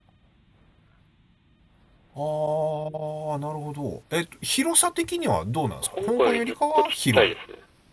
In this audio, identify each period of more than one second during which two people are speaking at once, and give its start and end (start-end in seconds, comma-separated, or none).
6.0-7.3